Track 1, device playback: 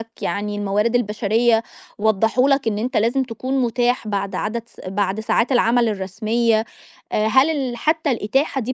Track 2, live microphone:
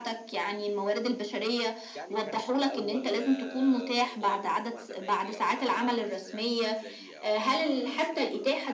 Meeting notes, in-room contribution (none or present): present